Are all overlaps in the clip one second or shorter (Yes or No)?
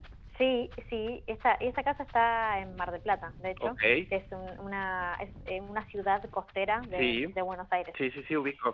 Yes